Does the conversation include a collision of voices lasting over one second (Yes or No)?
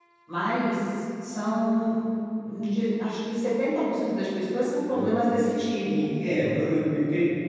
No